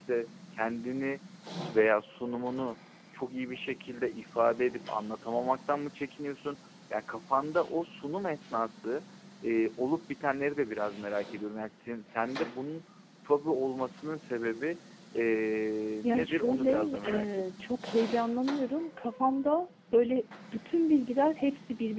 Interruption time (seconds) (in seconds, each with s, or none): 16.0 s